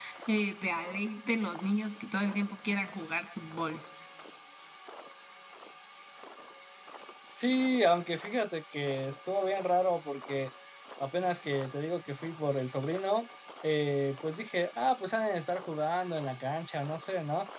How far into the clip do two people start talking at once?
none

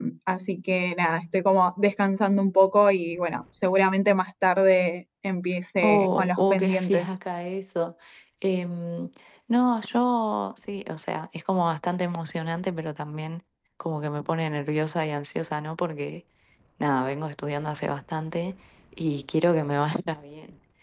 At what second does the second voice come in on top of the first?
5.8 s

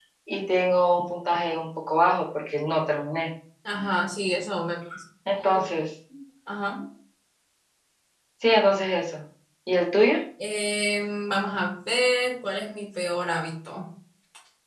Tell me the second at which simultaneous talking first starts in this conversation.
none

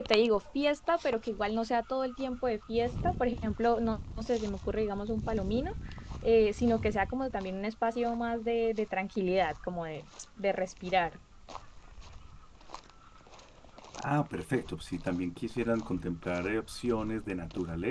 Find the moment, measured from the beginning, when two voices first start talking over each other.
none

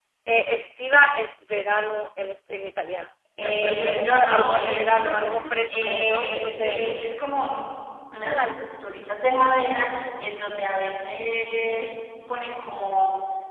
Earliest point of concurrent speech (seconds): 3.4 s

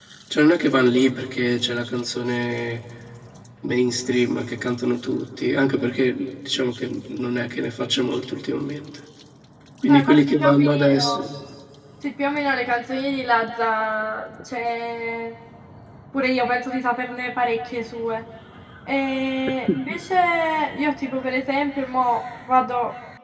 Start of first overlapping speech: 9.9 s

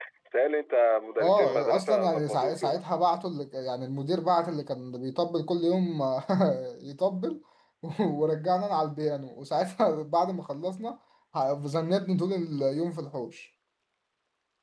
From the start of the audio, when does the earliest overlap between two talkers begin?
1.2 s

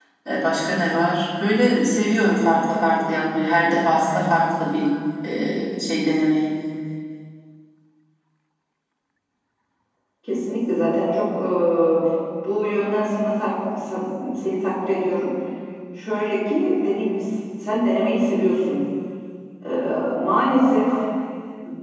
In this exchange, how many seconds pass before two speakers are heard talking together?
none

